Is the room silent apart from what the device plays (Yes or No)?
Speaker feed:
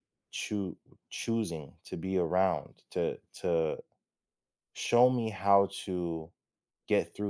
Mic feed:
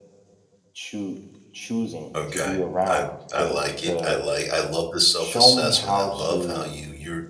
No